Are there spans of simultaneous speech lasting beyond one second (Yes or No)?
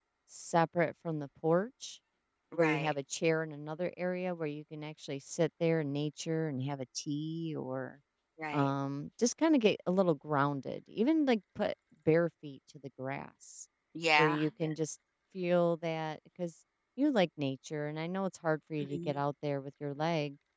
No